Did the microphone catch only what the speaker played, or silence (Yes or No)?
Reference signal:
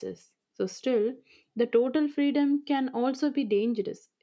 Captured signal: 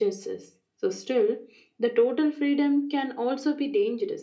Yes